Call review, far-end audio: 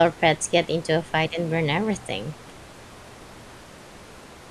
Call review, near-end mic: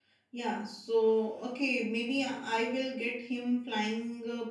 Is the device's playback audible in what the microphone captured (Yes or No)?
No